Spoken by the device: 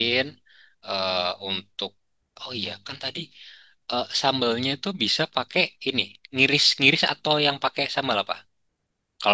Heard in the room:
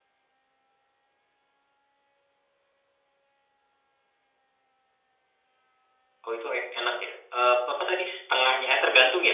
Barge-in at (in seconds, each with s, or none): 6.2 s